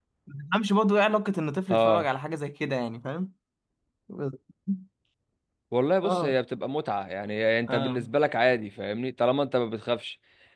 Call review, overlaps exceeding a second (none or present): none